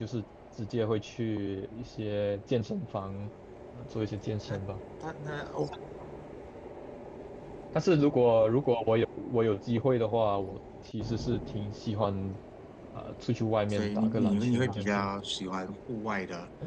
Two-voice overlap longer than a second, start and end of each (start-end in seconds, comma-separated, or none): 13.7-15.1